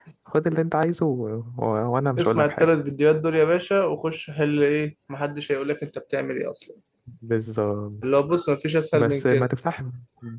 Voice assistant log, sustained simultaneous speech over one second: none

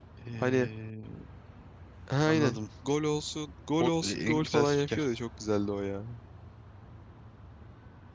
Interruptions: present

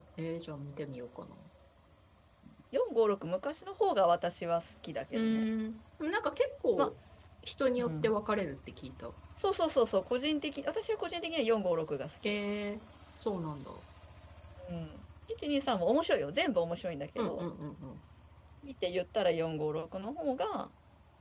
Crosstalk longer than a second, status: none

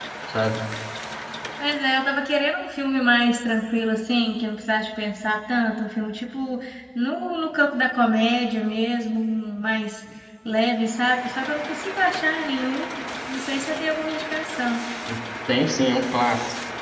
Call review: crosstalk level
none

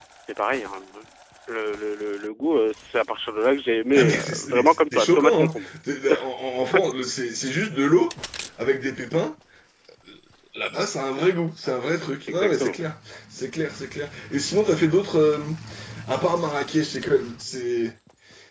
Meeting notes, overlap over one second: present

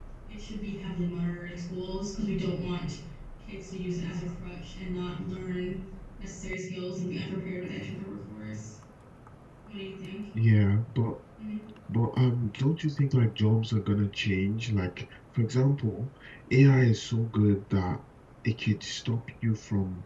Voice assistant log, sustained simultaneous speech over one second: none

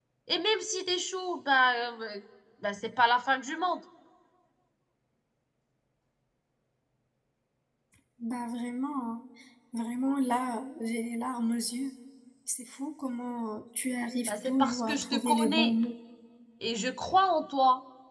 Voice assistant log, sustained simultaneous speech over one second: present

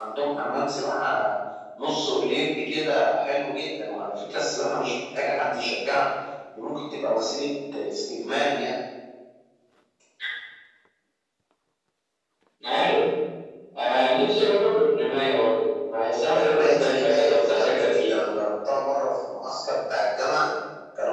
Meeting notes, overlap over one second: present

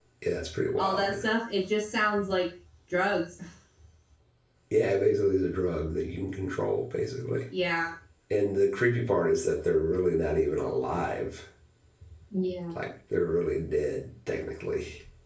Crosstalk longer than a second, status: none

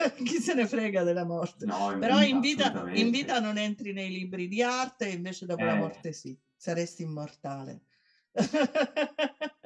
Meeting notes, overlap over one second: present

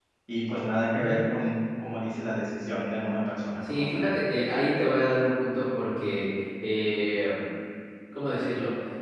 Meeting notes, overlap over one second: none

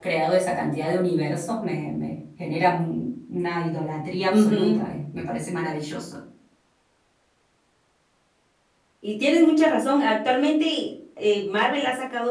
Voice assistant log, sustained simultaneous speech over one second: none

